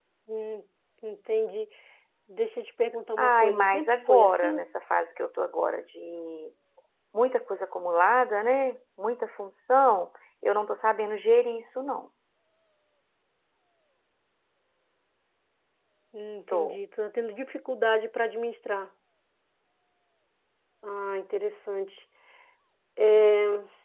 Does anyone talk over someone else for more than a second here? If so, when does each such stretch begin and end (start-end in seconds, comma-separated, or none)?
3.2-4.6